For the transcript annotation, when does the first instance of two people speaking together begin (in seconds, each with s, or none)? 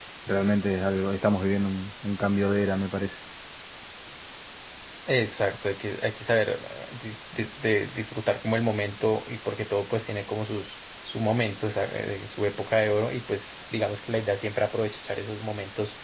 none